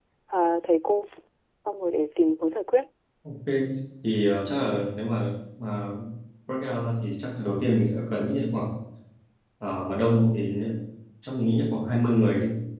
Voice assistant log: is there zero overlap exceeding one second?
Yes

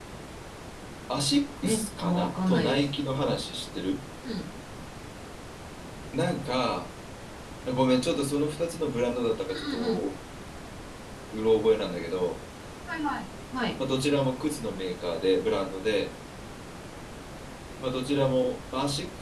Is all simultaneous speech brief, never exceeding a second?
No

